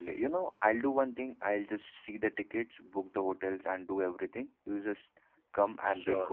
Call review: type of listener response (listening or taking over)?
taking over